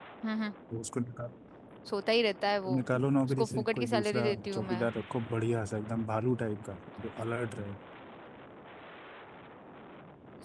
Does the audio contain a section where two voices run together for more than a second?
Yes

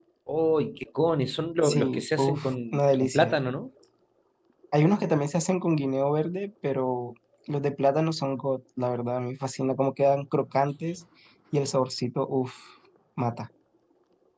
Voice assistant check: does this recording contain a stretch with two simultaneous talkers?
Yes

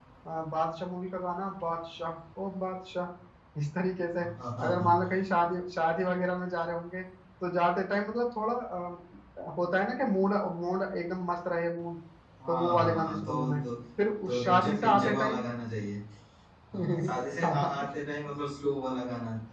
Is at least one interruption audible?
Yes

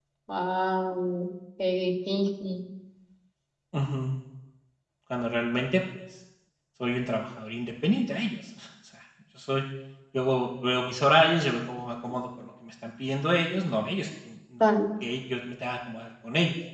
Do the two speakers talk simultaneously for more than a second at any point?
No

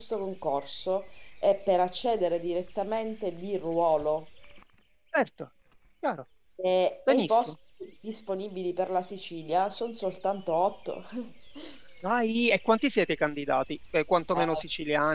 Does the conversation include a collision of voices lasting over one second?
No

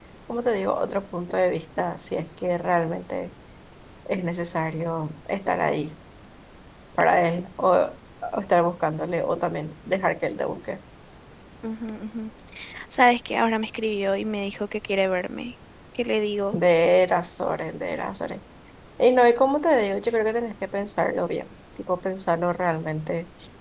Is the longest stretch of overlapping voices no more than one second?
Yes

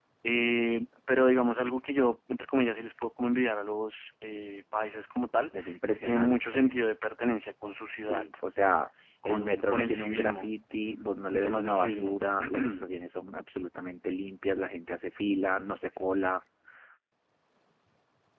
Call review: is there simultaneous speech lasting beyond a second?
Yes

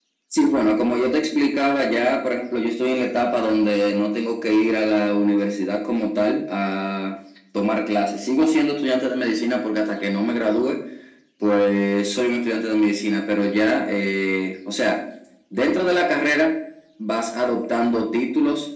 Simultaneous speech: No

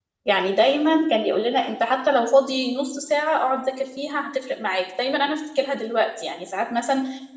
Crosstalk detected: No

